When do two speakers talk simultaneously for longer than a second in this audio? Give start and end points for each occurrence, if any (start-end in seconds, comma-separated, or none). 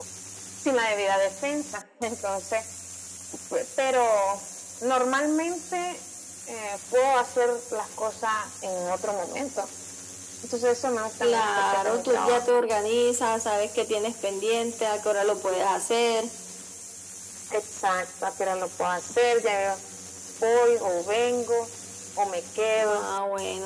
11.2-12.6